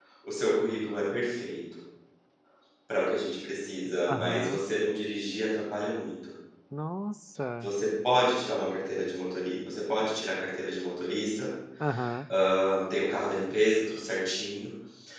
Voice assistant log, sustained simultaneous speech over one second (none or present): none